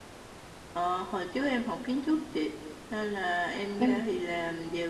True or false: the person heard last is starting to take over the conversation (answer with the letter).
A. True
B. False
B